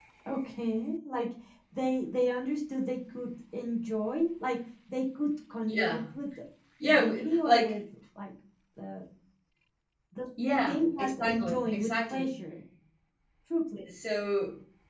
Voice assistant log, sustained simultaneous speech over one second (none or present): present